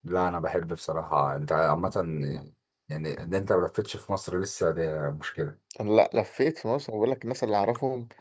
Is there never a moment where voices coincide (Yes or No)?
Yes